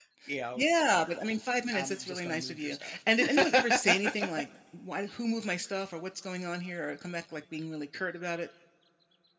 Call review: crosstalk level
present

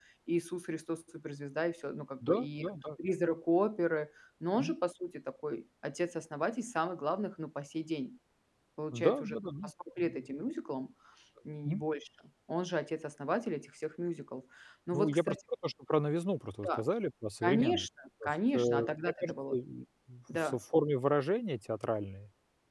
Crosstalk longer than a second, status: present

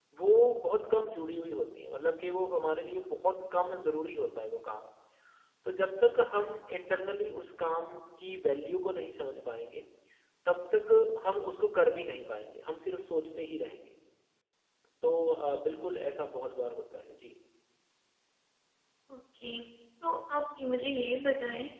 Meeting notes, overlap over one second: none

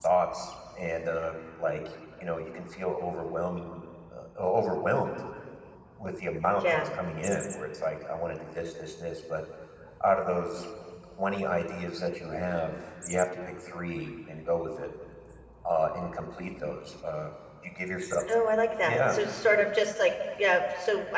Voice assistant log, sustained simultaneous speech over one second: none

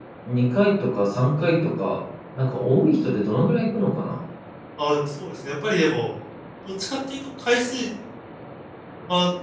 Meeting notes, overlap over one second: none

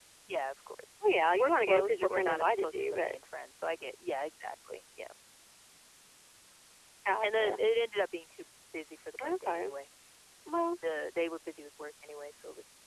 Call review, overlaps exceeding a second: present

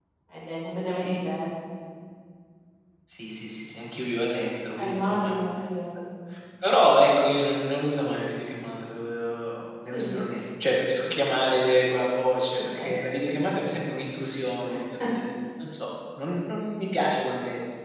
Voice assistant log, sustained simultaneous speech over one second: none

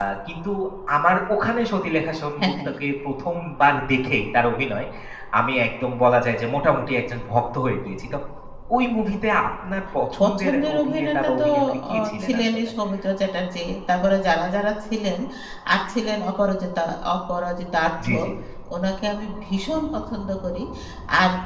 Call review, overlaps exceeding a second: present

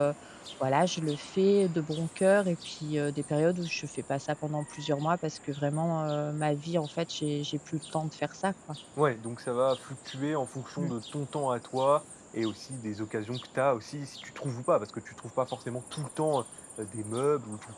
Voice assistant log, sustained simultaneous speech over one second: none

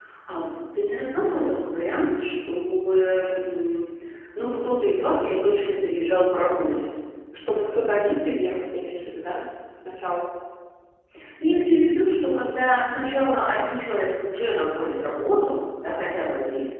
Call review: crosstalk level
none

